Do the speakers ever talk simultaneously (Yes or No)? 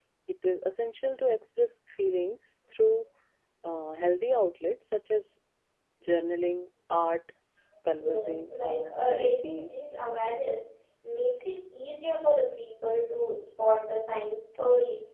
Yes